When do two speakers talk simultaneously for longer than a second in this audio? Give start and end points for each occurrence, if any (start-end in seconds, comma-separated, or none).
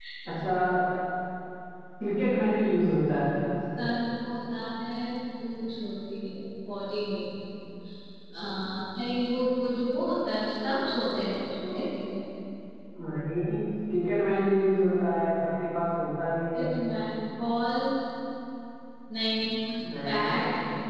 none